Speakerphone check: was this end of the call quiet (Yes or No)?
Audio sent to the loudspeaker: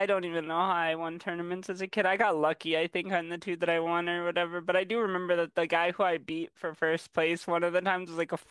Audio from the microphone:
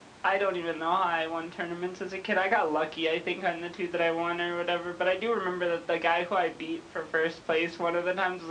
Yes